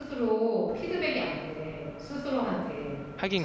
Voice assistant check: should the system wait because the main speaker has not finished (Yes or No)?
Yes